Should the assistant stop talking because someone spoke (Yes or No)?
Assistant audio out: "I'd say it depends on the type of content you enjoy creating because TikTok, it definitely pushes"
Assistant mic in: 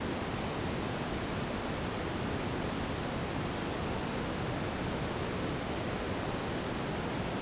No